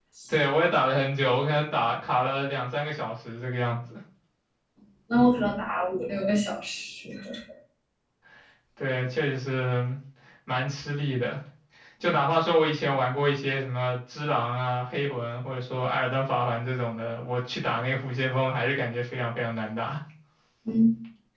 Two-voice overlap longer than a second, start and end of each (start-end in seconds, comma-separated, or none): none